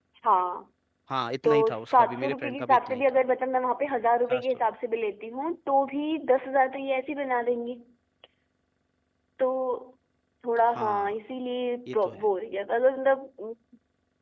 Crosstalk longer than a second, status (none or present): present